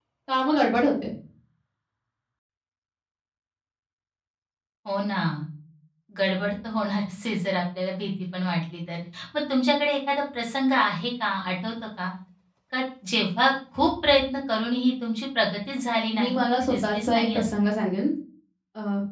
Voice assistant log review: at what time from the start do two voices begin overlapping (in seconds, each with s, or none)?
16.1 s